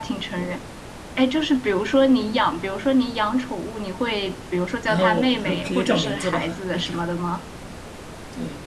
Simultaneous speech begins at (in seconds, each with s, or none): 4.9 s